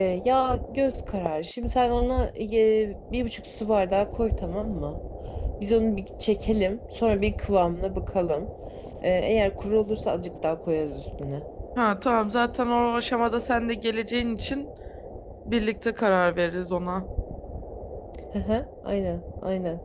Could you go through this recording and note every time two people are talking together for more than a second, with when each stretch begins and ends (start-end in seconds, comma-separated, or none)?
none